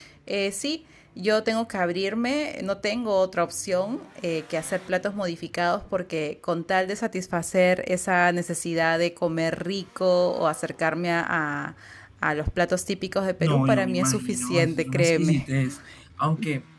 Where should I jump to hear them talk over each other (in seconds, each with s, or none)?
13.4 s